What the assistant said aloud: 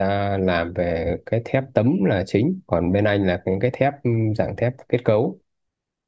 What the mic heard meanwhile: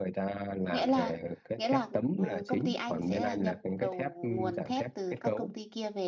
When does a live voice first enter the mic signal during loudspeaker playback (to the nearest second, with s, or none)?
1 s